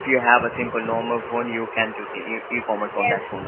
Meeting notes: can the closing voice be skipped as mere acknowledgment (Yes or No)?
No